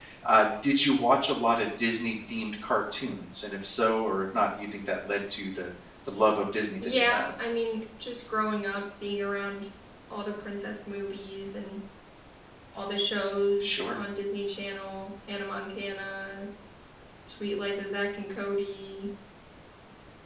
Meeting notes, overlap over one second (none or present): none